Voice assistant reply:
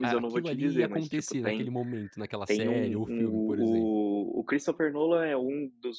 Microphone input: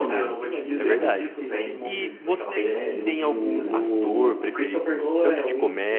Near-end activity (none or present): present